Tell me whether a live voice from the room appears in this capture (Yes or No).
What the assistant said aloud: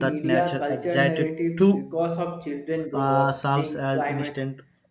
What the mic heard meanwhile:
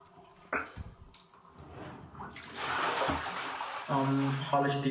Yes